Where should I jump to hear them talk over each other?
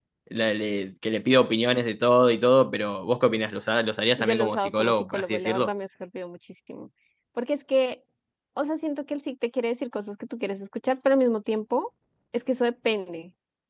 4.2 s

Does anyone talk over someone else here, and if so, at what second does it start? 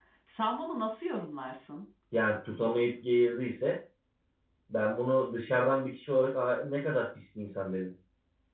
none

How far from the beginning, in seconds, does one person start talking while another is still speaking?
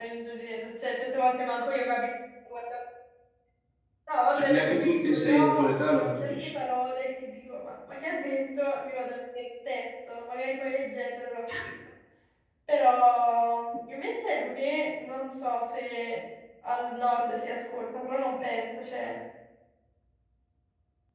4.3 s

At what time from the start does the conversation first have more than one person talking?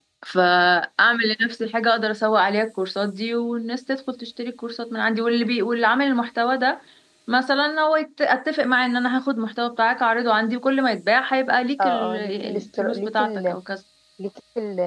11.8 s

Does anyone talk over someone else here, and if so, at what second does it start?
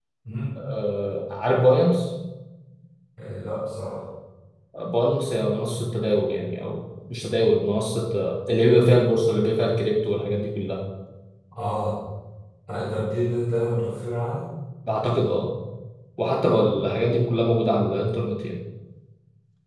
none

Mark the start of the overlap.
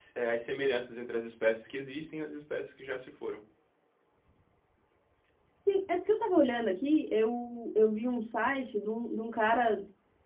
none

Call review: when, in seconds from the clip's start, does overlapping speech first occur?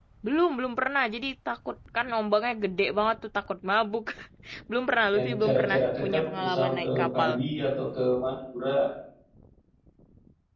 5.1 s

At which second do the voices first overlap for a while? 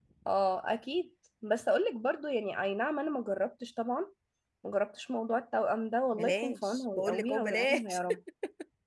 6.1 s

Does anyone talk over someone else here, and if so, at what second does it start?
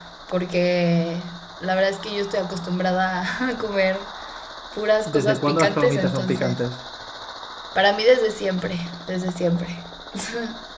5.1 s

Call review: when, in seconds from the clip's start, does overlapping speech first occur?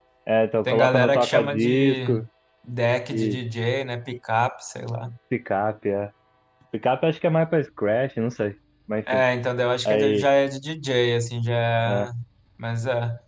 0.7 s

